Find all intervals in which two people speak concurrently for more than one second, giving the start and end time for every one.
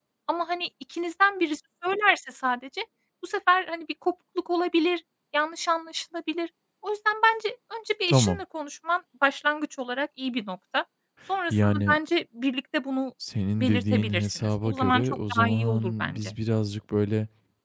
13.6-16.3

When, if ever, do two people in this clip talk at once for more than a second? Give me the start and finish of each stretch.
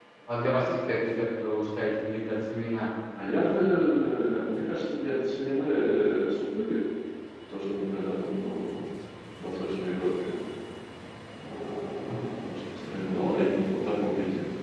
none

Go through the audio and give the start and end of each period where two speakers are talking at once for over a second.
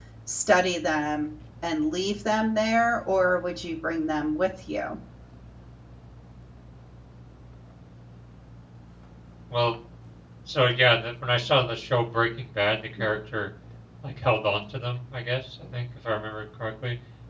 none

